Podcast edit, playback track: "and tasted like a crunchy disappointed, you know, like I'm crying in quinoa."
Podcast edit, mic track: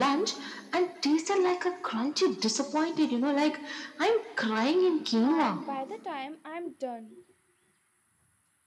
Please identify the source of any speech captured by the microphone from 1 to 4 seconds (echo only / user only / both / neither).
echo only